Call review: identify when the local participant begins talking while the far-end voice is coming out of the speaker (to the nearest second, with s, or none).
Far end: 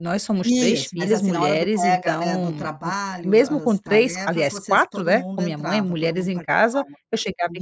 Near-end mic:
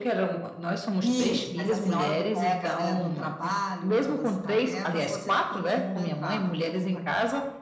none